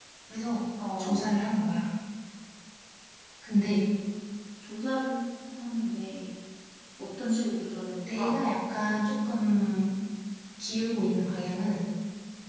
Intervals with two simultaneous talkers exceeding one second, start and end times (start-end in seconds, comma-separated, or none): none